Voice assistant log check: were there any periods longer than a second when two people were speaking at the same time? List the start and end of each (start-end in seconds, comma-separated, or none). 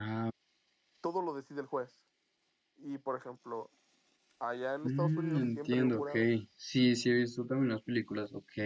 4.8-6.1